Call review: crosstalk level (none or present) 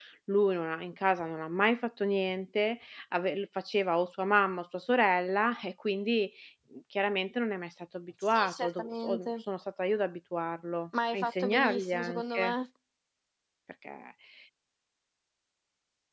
present